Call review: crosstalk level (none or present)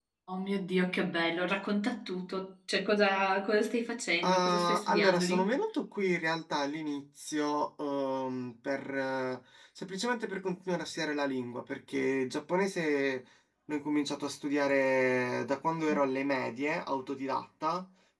present